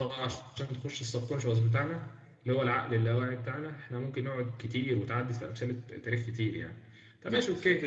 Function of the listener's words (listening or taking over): listening